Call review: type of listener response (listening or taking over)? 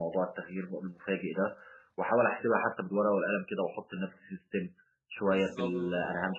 listening